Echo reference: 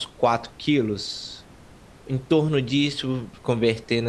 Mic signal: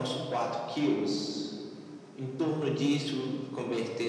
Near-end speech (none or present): none